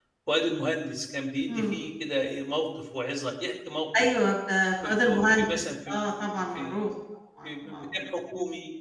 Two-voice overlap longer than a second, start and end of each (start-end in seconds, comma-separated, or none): 4.8-6.8